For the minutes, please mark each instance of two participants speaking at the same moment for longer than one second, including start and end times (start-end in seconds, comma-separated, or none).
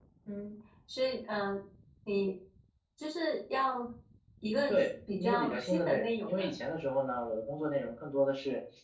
5.2-6.6